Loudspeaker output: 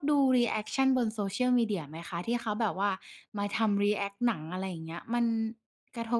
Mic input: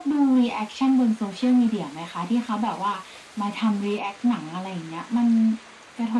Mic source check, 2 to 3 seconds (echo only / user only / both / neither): echo only